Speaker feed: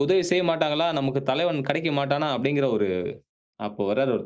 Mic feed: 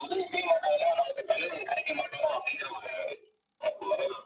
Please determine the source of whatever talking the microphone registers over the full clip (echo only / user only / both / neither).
echo only